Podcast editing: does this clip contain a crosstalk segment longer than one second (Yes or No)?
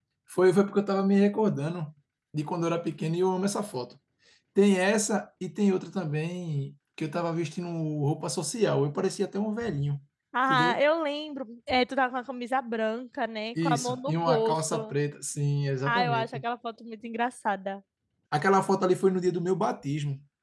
Yes